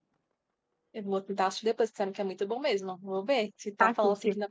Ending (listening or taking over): listening